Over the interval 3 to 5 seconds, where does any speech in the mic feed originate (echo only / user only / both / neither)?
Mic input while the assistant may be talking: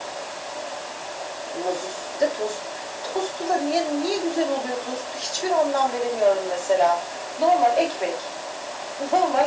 echo only